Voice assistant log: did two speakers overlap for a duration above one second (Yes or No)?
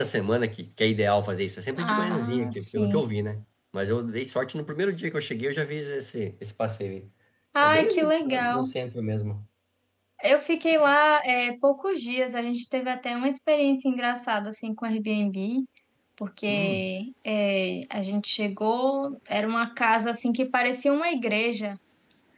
Yes